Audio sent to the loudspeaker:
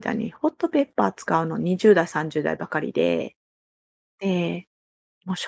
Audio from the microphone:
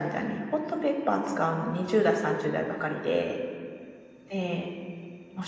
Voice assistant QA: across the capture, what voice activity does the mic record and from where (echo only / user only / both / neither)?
echo only